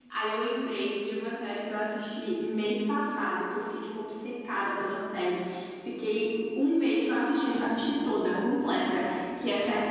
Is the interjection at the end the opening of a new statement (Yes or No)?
No